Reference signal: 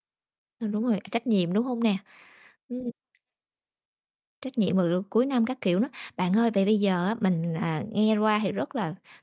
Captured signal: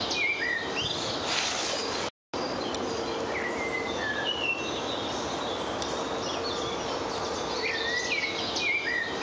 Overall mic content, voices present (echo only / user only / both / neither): neither